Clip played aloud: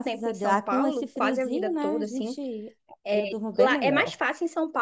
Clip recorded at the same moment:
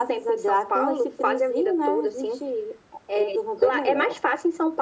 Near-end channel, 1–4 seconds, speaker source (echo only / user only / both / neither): echo only